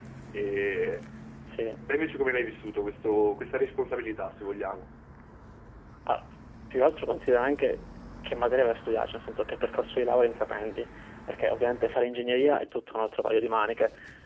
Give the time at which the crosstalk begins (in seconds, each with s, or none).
none